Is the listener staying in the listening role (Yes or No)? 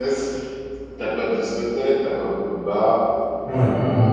Yes